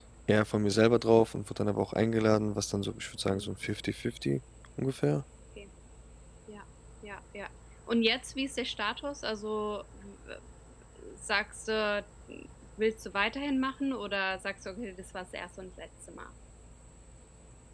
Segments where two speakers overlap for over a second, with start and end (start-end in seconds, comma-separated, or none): none